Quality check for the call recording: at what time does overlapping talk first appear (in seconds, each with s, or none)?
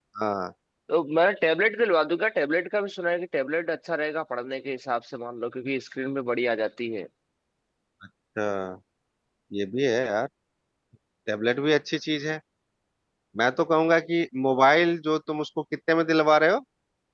none